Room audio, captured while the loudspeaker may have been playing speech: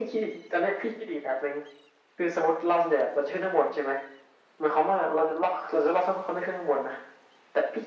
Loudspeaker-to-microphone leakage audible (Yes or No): Yes